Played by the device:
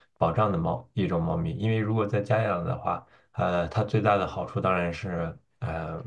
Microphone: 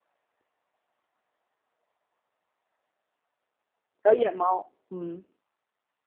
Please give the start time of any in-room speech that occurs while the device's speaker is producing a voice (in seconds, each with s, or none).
4.0 s